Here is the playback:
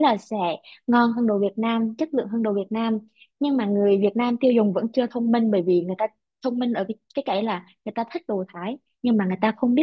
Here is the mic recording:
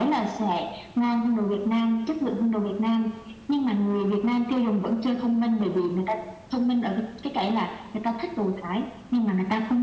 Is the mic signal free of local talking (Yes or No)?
Yes